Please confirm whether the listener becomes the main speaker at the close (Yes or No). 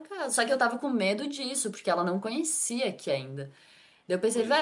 No